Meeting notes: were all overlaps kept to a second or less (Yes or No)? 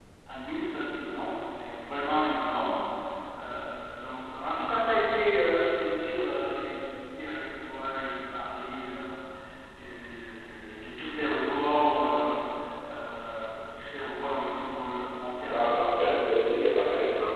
Yes